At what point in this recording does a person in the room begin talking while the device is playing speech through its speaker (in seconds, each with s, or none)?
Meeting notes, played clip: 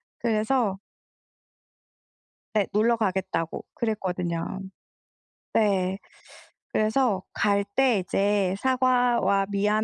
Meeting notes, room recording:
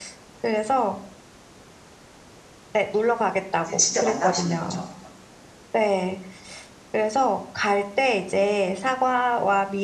3.6 s